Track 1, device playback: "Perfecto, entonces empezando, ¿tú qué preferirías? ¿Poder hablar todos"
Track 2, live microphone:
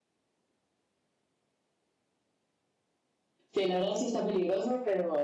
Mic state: user only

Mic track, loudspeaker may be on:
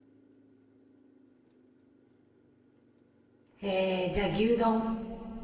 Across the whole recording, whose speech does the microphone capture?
user only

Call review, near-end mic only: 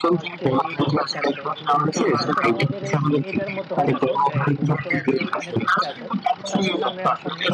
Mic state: both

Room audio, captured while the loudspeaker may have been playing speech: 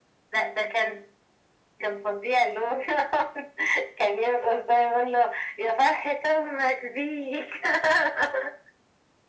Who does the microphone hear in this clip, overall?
echo only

